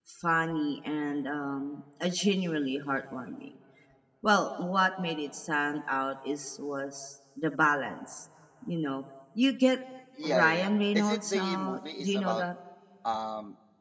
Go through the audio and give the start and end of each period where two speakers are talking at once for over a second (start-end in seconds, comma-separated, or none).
10.2-12.4